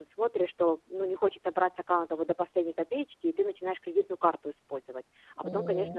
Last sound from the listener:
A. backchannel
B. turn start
A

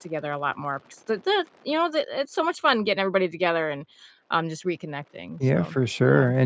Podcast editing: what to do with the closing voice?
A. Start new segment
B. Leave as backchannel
A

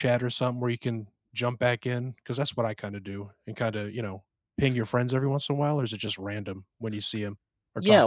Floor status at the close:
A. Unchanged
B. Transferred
B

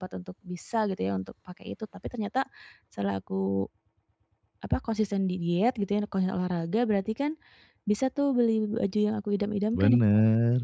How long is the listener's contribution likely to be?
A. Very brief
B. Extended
B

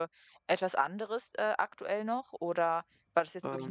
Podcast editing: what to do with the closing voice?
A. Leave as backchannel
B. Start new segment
A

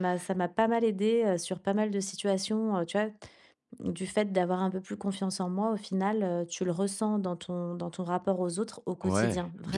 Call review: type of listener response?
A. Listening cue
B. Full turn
B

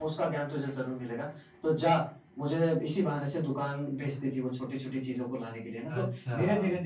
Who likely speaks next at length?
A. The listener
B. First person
B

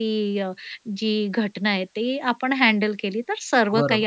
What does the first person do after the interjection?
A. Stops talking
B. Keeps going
A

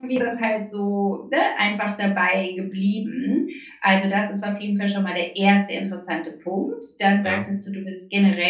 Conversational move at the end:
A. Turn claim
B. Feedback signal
B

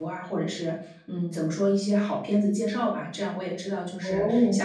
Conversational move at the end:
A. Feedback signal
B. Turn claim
A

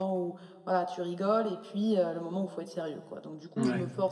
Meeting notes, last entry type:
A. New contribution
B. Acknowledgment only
B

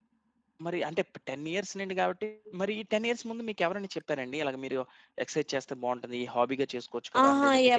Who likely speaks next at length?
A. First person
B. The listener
B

